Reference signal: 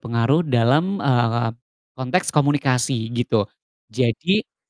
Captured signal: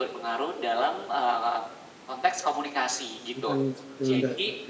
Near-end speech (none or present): present